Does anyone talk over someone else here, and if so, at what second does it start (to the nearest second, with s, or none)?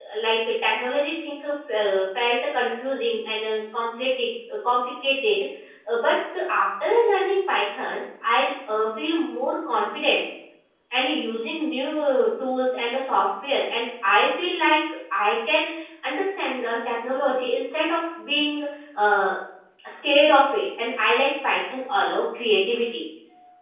none